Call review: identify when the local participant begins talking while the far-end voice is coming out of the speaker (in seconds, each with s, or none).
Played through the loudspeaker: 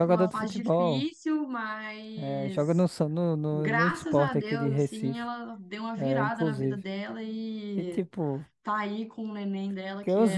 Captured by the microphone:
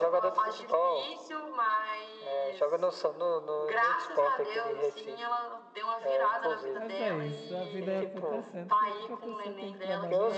6.7 s